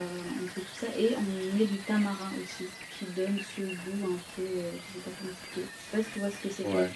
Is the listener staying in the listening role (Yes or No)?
No